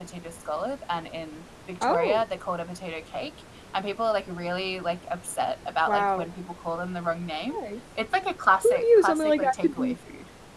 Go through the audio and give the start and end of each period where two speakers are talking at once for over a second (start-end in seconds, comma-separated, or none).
8.6-9.9